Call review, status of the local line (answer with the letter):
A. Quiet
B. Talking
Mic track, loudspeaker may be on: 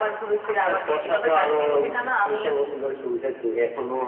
A